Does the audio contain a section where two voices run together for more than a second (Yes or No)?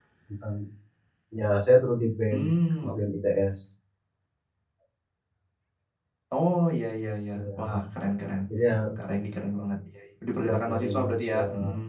Yes